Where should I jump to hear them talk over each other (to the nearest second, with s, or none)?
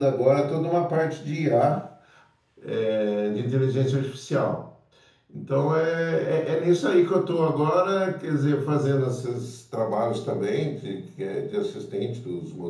none